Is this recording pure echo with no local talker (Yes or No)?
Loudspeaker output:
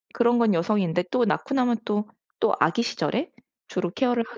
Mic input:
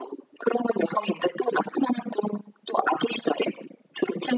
Yes